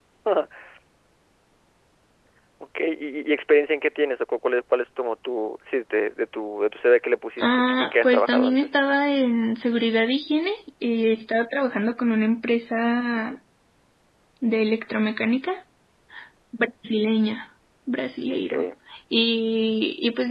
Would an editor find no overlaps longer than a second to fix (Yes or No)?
No